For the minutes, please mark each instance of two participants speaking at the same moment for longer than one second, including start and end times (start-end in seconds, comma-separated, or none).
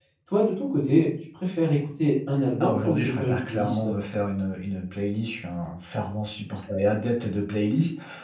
2.6-3.9